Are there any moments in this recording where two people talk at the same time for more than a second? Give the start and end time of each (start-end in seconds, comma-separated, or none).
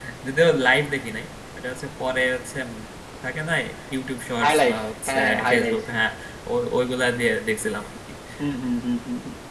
4.4-5.8